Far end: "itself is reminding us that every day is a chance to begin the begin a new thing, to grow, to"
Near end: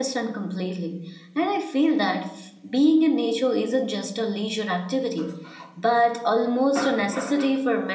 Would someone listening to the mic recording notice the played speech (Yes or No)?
No